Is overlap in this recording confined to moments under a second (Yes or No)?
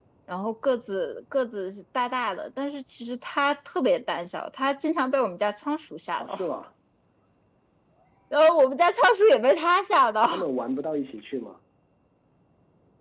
Yes